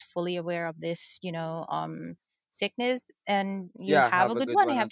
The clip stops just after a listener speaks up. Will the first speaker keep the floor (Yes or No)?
No